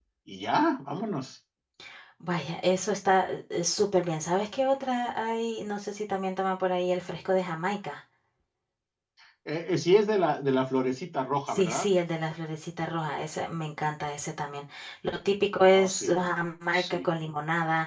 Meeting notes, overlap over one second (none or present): none